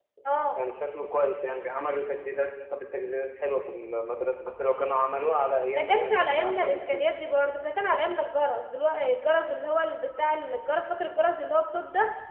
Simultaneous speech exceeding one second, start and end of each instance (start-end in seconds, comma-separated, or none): 5.8-7.0